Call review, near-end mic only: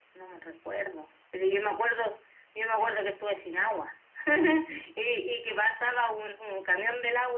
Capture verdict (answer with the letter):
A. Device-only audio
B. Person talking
A